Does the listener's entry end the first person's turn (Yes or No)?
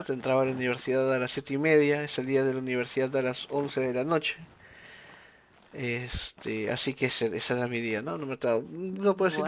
No